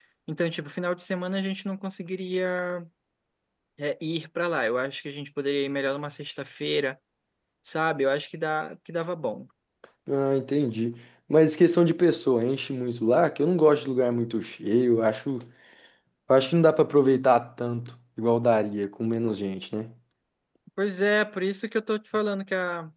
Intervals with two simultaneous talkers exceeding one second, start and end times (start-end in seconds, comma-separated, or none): none